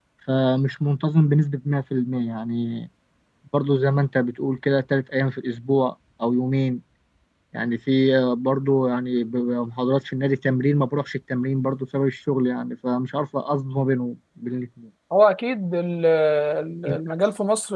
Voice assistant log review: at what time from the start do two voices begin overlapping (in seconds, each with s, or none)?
none